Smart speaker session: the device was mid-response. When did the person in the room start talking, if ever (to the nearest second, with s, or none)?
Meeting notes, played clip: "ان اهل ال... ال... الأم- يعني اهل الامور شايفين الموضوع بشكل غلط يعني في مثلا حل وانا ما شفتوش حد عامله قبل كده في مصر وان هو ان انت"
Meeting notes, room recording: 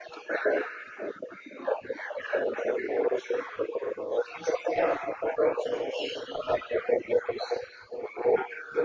none